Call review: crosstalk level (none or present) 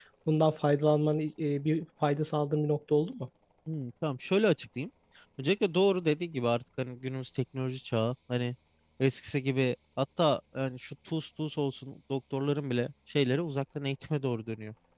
none